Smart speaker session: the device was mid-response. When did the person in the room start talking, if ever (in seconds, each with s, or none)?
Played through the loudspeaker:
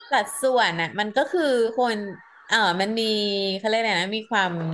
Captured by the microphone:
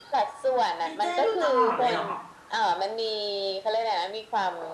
0.8 s